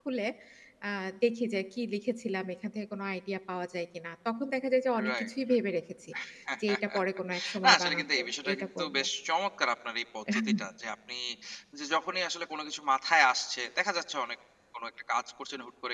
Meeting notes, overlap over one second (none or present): present